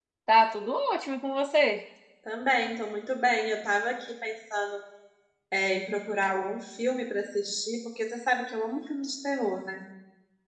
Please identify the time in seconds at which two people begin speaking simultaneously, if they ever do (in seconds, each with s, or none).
none